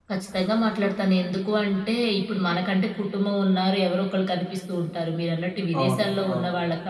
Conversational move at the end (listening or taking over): listening